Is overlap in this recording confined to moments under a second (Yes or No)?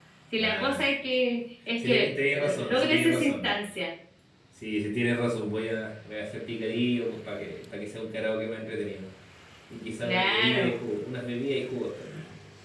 No